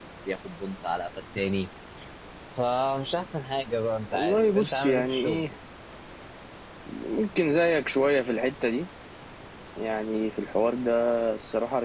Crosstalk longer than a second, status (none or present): present